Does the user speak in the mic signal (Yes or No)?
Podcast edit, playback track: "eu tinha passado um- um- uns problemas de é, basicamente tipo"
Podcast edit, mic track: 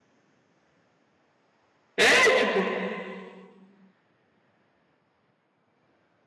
Yes